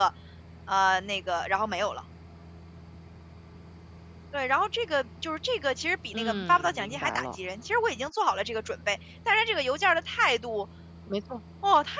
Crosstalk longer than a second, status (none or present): present